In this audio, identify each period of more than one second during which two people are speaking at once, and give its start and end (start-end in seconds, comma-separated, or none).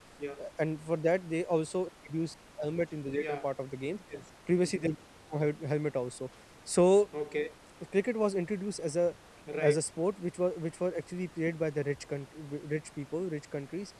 none